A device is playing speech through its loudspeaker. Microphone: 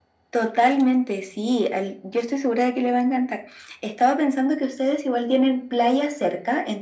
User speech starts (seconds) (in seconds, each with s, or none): none